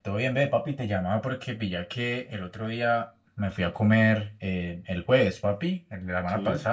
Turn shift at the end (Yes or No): No